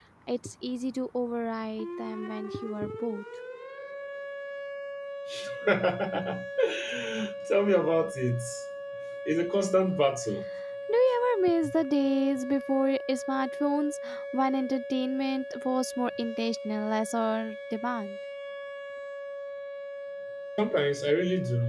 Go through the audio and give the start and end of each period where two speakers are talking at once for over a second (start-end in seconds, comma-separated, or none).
none